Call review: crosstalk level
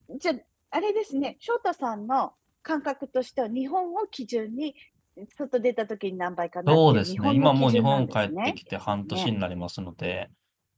present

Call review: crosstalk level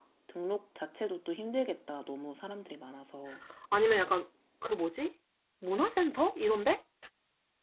none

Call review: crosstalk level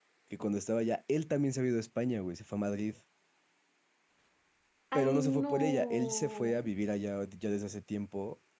present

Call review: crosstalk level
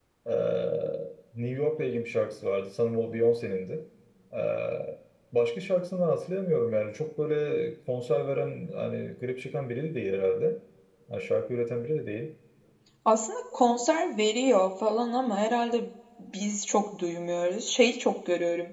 none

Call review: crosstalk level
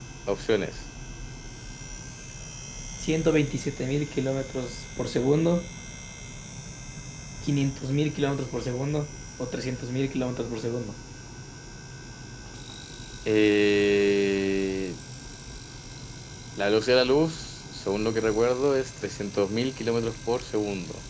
none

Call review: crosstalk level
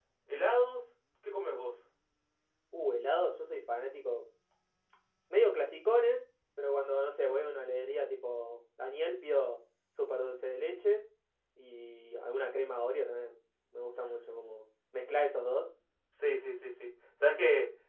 none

